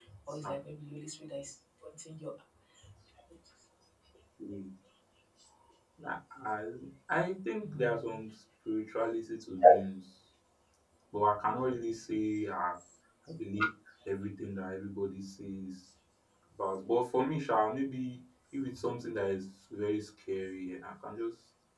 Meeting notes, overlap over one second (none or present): none